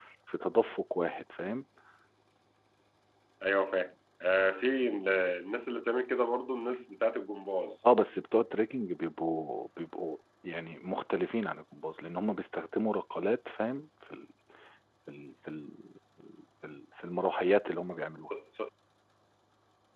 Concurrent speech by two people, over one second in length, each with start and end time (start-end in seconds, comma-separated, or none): none